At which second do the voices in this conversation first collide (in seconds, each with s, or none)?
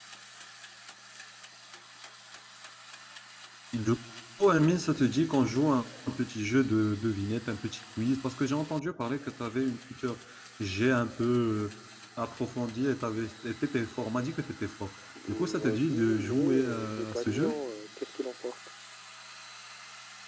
15.1 s